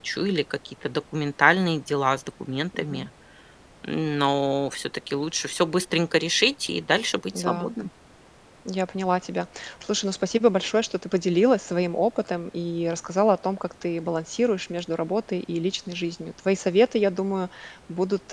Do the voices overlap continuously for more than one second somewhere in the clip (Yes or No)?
No